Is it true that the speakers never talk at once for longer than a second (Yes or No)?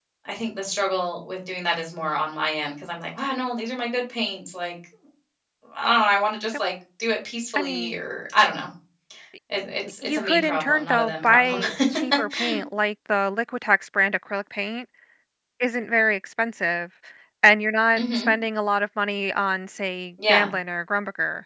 No